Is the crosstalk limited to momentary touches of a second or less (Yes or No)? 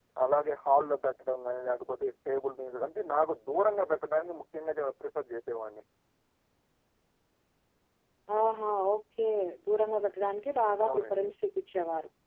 Yes